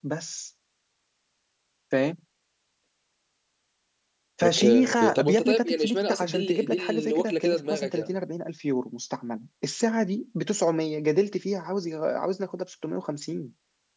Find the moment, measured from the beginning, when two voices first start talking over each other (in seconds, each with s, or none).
4.4 s